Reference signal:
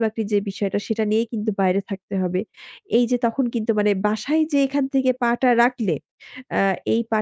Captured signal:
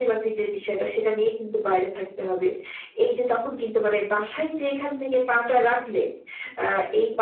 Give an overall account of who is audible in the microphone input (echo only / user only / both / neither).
echo only